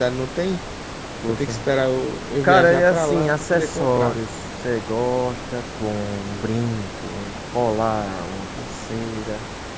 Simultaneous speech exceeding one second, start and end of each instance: 2.4-4.2

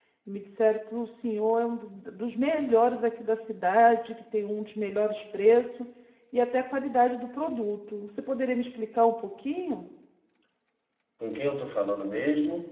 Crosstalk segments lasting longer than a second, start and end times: none

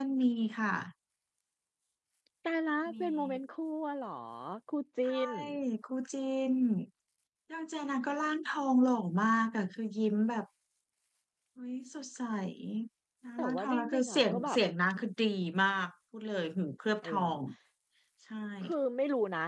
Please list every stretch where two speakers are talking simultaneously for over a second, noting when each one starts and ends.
13.4-14.6

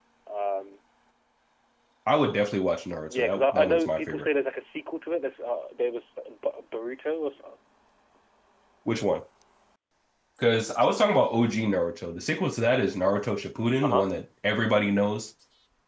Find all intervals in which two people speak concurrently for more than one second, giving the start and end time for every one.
3.1-4.3

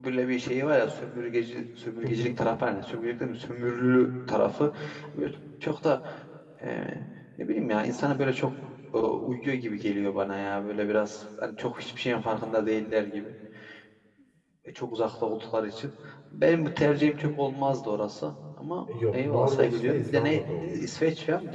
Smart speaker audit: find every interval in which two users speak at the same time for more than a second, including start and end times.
19.1-20.9

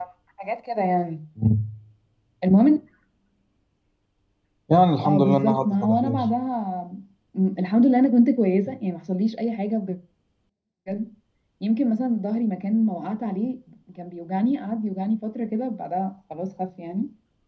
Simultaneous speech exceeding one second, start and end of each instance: 5.0-6.2

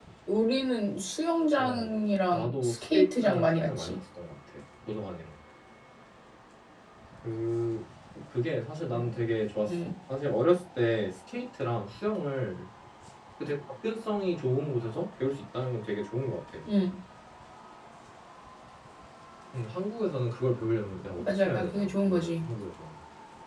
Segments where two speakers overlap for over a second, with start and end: 2.3-4.0, 21.2-22.4

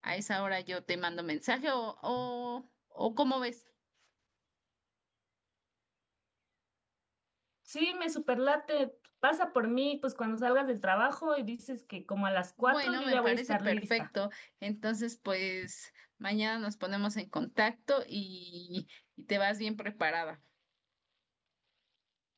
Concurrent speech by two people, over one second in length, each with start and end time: 12.6-14.1

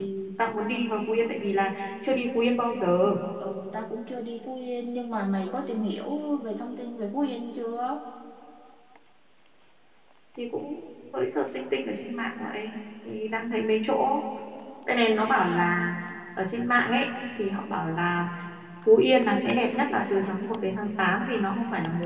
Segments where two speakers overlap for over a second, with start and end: none

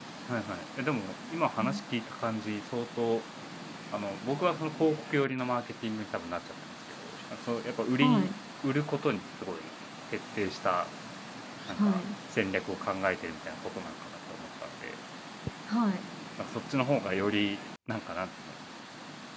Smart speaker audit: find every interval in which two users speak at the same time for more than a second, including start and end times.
none

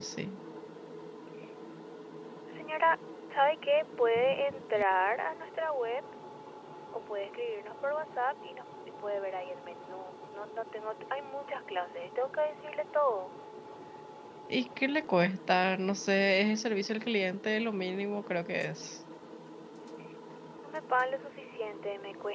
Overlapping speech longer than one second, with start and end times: none

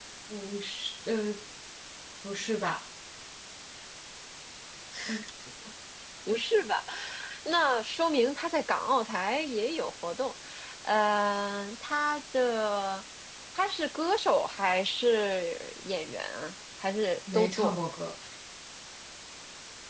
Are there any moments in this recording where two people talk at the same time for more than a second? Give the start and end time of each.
none

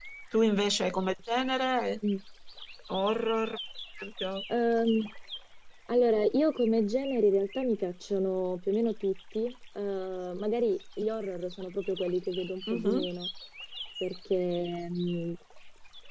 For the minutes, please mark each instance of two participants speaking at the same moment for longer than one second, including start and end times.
none

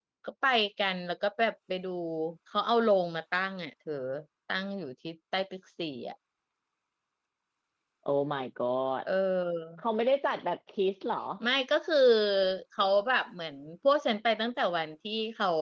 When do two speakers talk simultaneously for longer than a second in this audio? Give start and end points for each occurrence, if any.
none

